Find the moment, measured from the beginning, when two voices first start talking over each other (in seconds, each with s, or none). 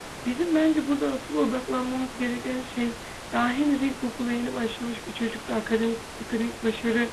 none